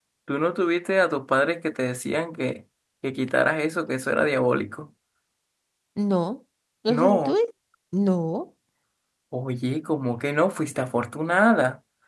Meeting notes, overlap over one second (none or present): none